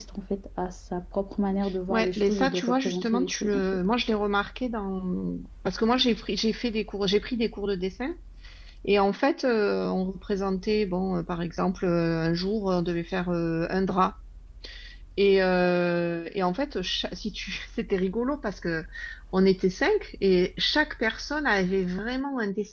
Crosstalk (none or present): present